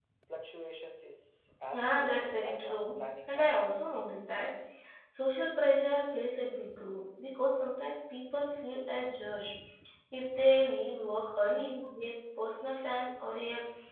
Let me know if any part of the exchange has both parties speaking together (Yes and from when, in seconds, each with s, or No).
Yes, from 1.7 s